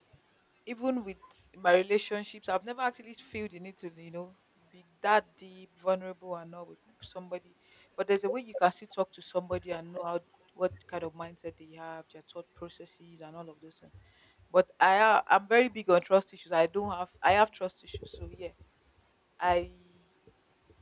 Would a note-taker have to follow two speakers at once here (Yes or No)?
No